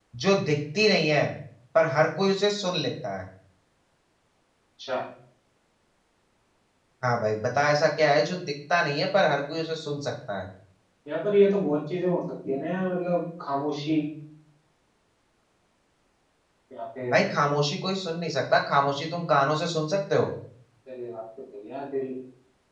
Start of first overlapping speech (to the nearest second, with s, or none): none